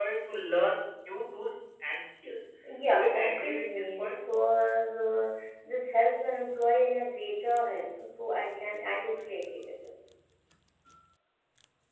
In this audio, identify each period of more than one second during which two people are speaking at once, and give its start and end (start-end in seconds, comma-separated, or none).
2.9-4.2